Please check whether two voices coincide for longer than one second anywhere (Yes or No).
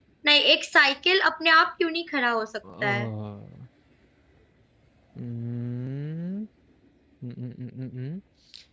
No